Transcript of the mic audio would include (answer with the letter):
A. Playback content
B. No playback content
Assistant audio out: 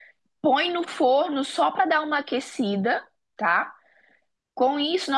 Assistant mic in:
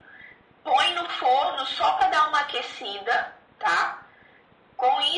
A